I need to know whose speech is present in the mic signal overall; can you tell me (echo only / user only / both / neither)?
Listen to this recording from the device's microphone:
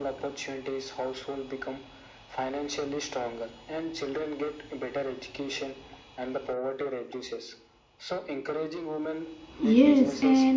both